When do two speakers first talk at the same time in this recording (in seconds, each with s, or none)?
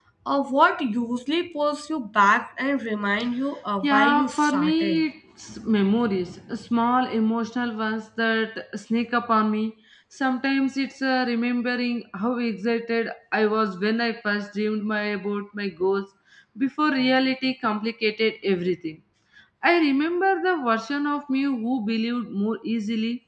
3.8 s